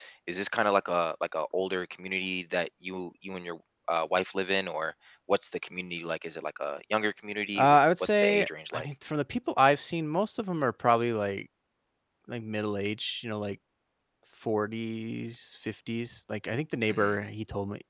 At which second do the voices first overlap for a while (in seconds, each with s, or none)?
7.5 s